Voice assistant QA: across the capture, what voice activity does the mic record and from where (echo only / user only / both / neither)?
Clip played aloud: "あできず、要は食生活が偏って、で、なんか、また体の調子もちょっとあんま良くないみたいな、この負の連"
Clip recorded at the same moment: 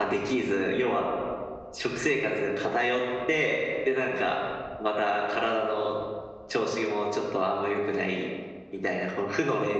echo only